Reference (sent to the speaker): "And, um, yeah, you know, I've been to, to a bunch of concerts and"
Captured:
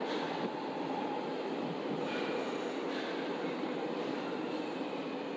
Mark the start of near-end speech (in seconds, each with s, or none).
none